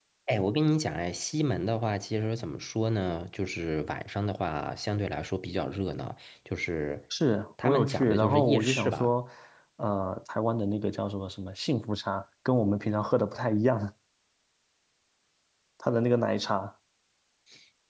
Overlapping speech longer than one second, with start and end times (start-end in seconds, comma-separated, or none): 7.6-9.1